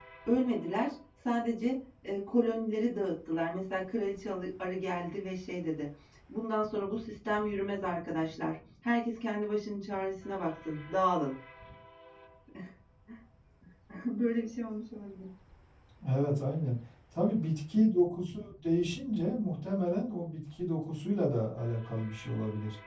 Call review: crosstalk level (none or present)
none